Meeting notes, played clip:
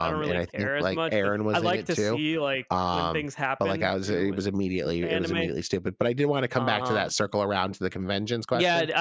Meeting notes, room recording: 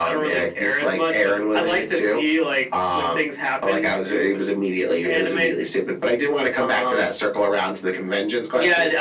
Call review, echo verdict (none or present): present